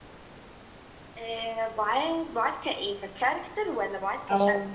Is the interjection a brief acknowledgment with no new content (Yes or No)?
No